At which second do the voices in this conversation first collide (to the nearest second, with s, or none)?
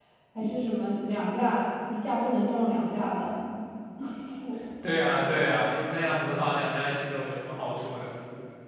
none